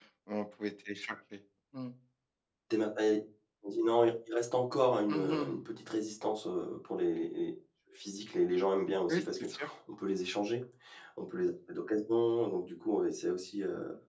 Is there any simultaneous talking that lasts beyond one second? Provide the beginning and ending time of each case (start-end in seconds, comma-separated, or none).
none